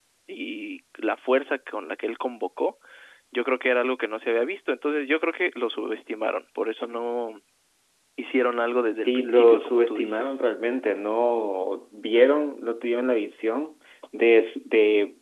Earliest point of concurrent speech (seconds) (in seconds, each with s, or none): 9.1 s